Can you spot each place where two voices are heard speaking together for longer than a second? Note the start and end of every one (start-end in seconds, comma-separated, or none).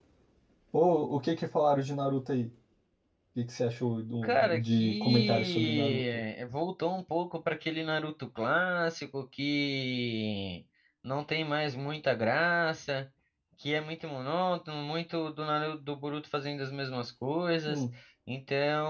4.2-6.2